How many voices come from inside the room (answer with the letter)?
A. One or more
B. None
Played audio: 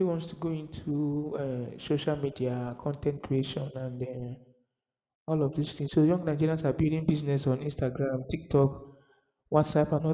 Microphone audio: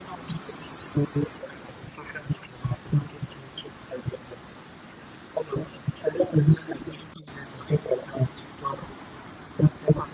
B